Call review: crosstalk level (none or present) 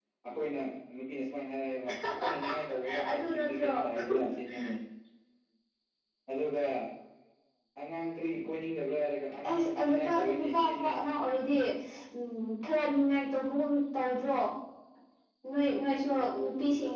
present